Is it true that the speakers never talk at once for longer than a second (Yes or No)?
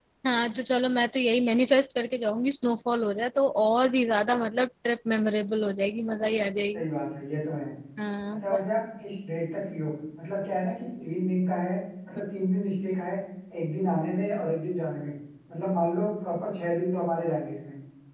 Yes